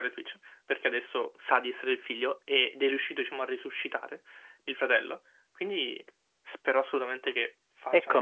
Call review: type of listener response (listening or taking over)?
taking over